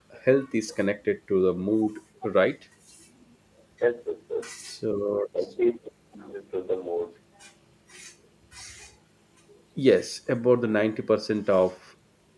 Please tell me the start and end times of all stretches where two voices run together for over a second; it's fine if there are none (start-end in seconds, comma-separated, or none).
none